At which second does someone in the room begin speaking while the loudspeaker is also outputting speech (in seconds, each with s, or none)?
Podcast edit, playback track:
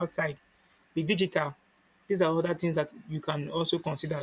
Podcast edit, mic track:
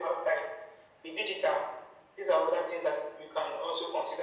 none